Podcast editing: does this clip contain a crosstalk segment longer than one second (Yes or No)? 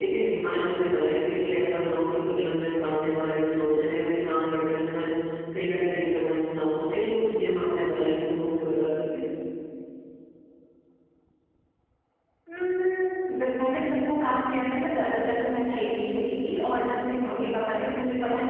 No